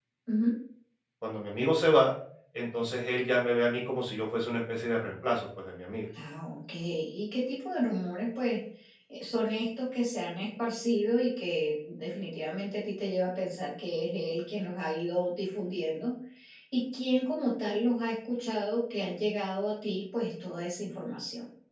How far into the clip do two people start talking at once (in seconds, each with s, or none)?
none